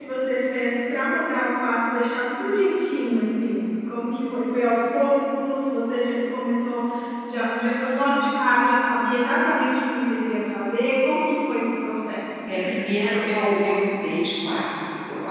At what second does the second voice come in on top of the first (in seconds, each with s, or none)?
none